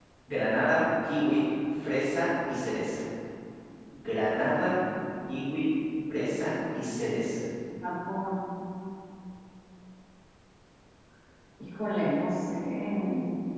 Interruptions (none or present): none